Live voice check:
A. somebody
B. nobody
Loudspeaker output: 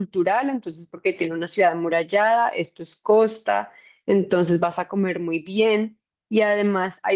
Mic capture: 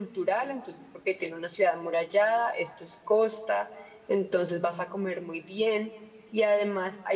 B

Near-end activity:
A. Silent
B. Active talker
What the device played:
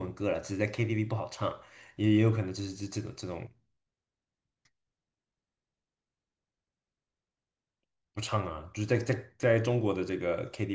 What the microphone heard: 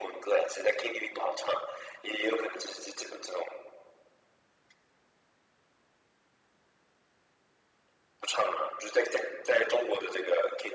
A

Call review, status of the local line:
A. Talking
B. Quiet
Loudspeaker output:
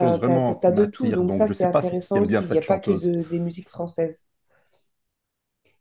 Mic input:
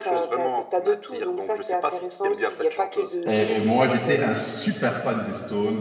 A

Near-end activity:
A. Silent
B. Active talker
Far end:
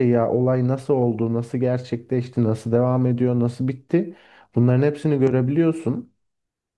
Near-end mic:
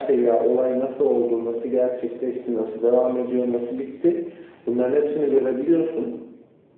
A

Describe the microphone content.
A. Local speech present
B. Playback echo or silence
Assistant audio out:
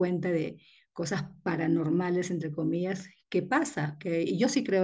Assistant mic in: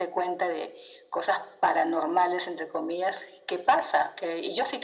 B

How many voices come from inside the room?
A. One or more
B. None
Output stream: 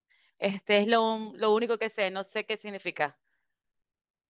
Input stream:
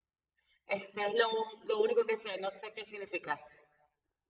B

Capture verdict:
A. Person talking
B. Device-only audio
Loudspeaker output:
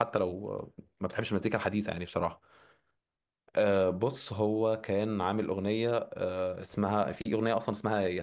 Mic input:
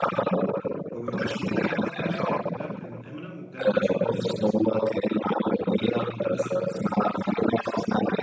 A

